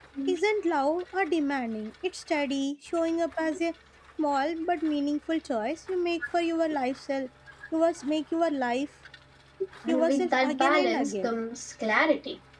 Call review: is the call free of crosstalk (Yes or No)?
No